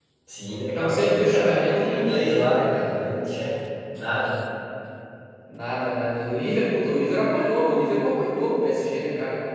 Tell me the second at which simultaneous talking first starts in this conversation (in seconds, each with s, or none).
0.7 s